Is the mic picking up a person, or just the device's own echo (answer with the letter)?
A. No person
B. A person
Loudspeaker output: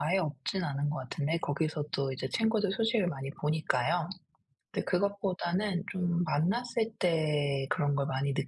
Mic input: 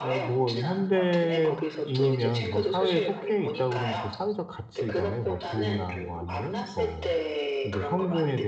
B